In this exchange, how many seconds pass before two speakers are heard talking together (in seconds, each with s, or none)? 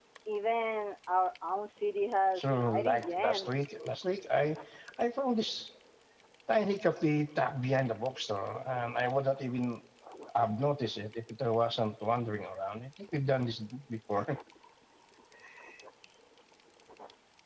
2.4 s